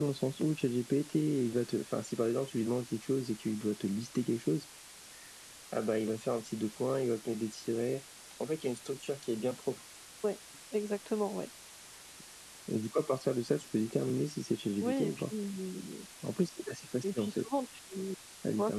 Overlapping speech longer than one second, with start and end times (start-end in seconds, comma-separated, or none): none